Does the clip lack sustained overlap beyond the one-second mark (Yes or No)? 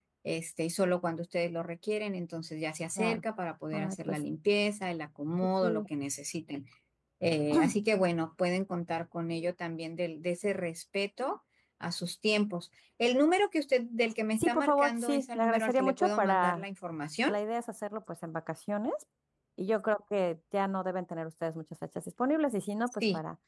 No